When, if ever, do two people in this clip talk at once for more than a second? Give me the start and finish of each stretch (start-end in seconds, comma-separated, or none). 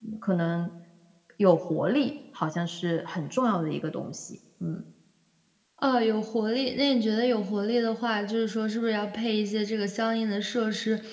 none